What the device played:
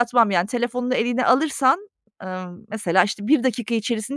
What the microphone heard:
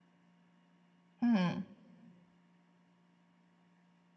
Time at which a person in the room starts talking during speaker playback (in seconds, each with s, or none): 1.2 s